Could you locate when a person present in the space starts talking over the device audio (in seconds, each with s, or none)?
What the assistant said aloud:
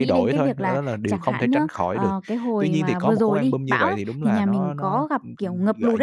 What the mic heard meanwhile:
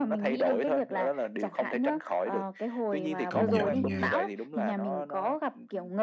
3.3 s